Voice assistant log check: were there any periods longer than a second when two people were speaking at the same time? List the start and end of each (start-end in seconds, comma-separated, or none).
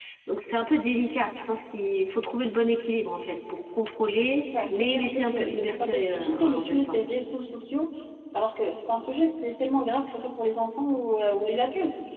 4.7-7.0